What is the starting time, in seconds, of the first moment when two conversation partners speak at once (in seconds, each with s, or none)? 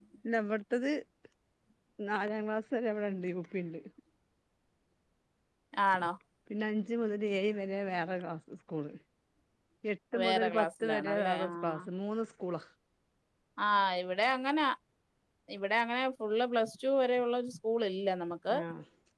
10.2 s